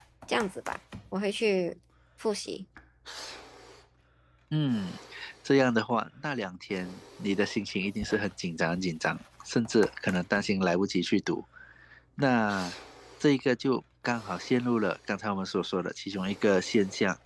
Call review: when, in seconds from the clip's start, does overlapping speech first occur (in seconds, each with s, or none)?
none